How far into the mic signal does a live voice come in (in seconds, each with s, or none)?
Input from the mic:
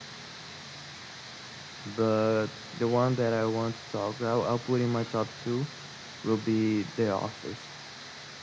1.8 s